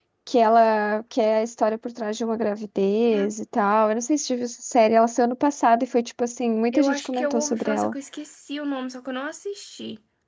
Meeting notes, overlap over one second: present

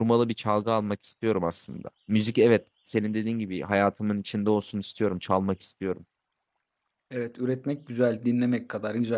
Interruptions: none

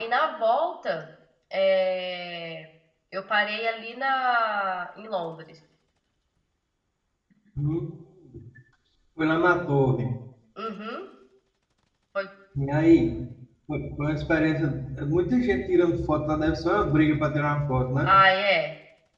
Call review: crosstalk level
none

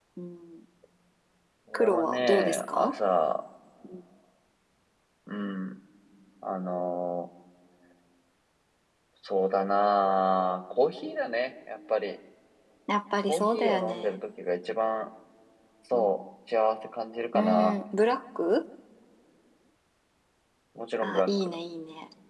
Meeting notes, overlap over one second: present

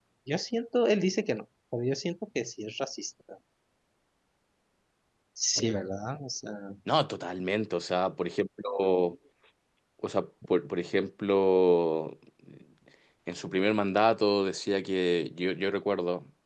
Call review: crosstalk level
none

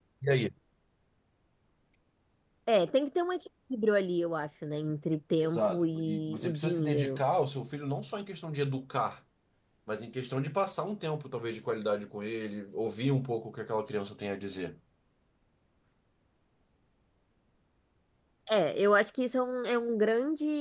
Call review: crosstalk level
present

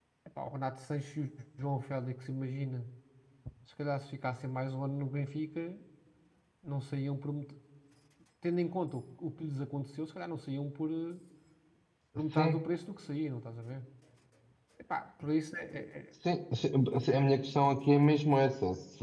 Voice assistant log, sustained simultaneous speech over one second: none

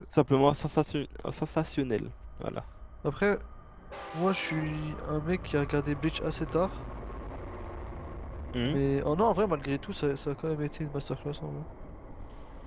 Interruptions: none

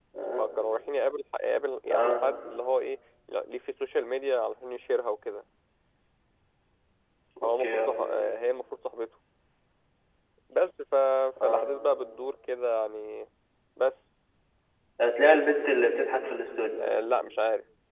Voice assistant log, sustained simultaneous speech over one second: none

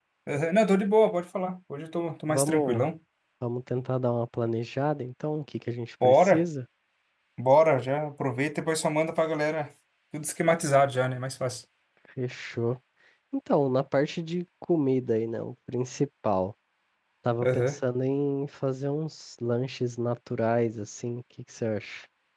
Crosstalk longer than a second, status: none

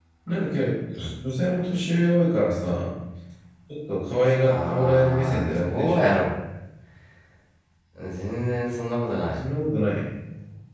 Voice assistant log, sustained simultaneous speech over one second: present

